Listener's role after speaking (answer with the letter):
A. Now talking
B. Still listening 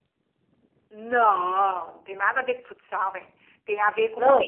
A